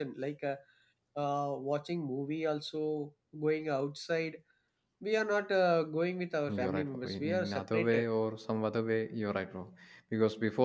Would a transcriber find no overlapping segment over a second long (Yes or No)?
No